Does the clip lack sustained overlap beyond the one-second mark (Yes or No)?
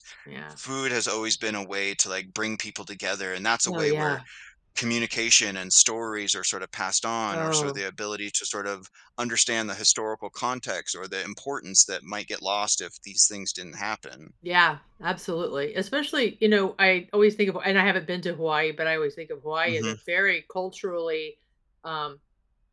Yes